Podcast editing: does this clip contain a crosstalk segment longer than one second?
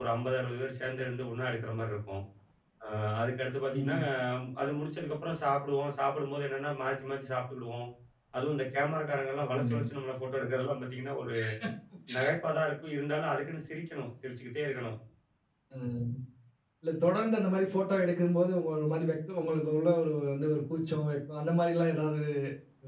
No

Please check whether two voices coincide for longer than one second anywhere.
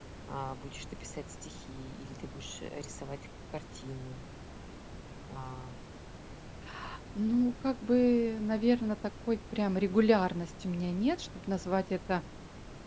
No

